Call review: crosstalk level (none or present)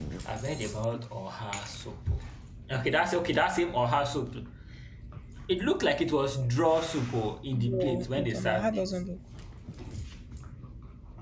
present